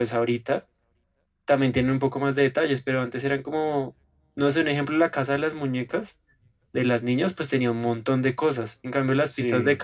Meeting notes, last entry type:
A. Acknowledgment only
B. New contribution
A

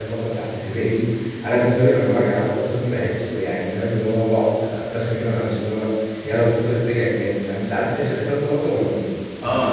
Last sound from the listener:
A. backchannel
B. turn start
B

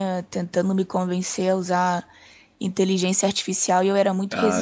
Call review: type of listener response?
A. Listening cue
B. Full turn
B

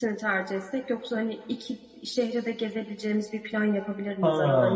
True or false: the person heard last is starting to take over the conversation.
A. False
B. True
A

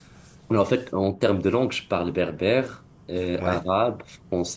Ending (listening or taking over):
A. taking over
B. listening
B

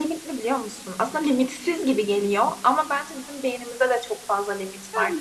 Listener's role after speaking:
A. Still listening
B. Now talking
B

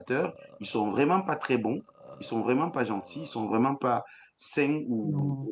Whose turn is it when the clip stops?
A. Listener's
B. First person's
B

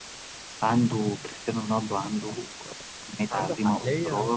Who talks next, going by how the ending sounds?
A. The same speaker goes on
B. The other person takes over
B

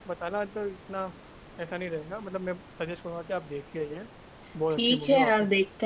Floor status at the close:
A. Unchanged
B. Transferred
B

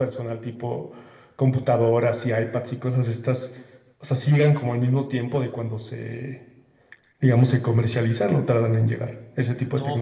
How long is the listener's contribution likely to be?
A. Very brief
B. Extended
B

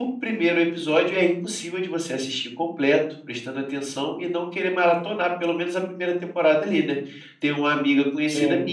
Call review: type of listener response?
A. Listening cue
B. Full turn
A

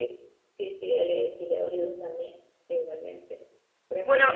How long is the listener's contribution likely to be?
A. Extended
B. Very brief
B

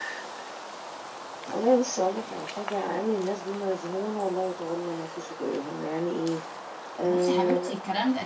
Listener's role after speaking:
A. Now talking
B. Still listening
A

